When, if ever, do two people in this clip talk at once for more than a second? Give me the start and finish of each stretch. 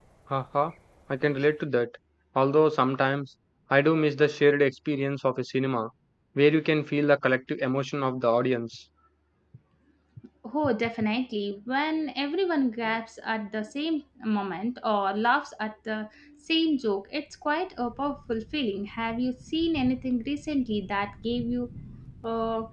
none

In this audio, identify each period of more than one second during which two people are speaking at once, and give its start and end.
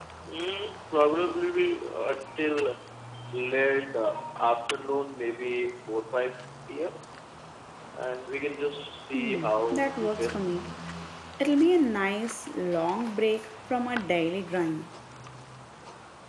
9.1-10.4

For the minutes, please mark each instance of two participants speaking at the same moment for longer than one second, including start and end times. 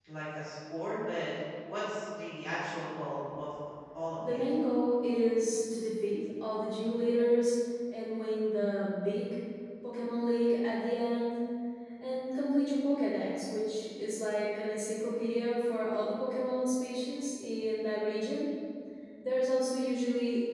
none

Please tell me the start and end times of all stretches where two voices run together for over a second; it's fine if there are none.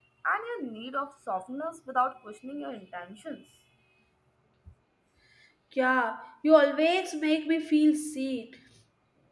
none

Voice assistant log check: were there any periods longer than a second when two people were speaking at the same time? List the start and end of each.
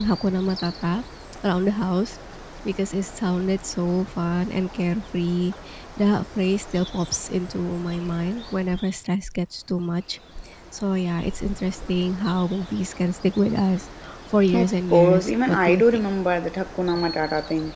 14.5-16.1

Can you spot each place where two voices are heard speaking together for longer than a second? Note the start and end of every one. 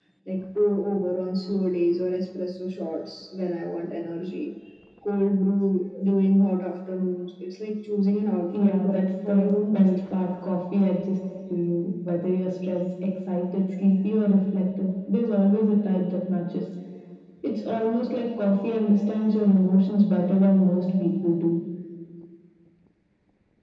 8.6-9.9

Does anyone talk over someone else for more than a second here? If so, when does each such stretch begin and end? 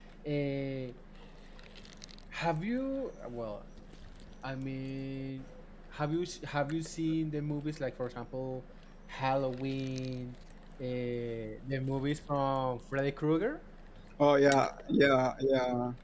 none

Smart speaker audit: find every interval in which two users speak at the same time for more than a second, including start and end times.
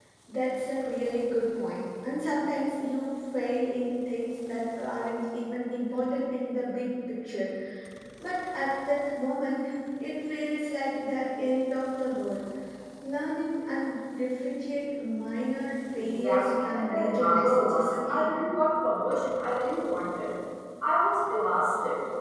16.0-18.3

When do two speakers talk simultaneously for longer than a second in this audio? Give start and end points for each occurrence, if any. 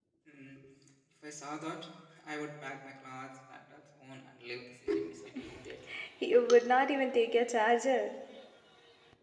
none

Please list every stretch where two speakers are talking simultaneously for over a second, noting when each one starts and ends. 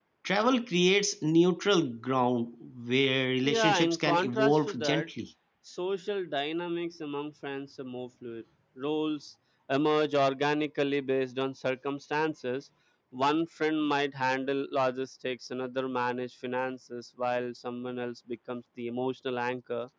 3.4-5.1

